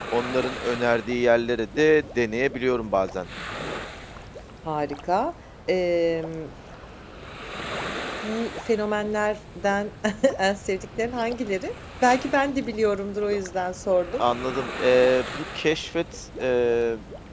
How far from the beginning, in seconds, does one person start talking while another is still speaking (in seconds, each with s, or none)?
none